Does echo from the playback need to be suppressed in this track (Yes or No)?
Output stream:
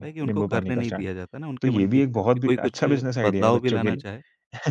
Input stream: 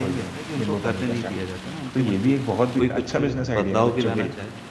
Yes